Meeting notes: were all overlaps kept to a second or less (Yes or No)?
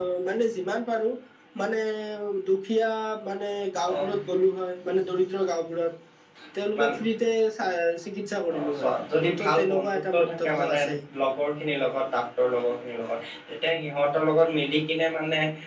No